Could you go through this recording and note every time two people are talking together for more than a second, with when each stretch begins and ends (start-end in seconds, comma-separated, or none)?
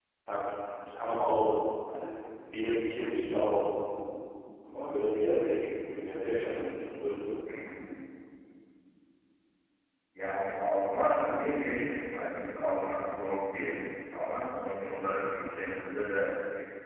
none